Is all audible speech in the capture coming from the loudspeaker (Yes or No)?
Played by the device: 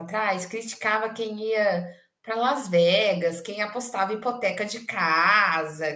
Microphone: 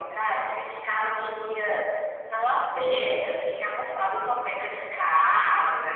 Yes